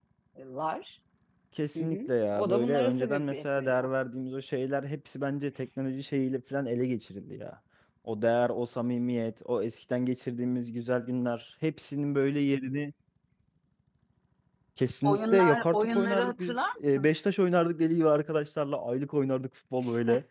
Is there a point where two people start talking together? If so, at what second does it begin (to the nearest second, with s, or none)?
2 s